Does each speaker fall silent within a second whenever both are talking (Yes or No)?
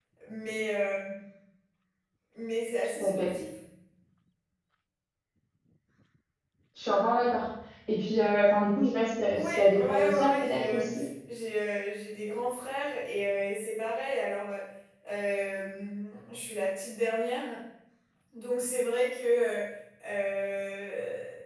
No